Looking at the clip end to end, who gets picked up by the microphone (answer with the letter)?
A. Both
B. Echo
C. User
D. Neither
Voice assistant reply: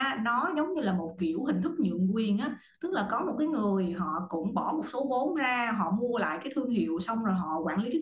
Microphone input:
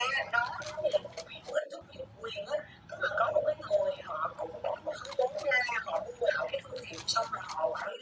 B